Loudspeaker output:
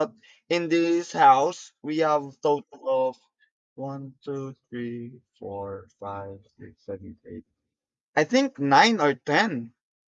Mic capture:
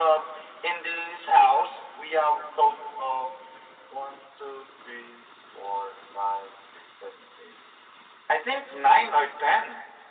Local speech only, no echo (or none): none